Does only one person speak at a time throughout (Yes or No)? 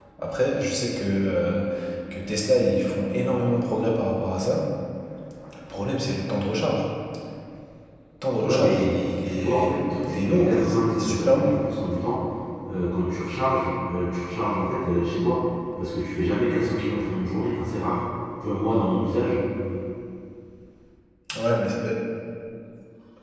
No